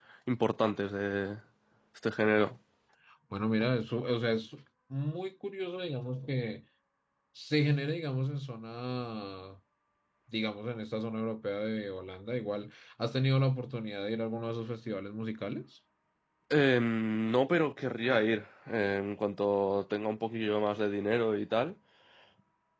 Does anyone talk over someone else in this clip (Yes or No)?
No